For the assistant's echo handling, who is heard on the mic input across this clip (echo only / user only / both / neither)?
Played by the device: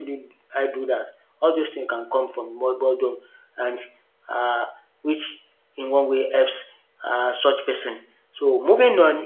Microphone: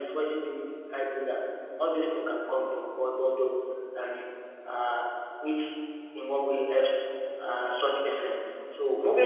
echo only